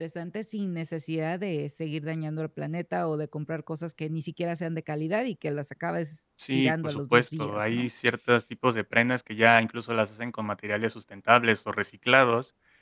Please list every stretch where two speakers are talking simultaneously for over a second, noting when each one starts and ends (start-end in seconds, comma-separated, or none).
6.5-7.9